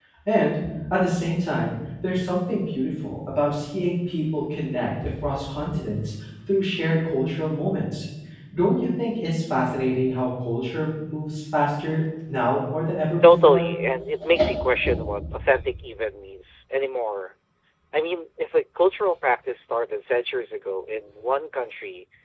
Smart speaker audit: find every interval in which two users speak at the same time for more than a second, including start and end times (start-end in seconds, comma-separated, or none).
none